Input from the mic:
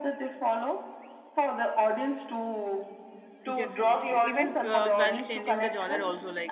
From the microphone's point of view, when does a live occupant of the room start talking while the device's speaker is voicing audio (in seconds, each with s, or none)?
3.5 s